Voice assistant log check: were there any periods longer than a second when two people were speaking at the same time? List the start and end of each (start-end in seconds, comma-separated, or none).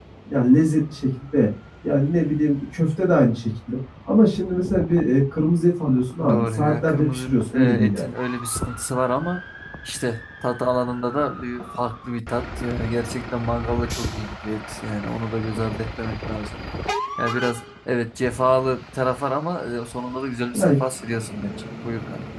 6.3-8.1